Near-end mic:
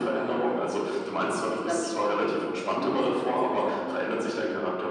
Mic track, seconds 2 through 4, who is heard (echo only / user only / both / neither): echo only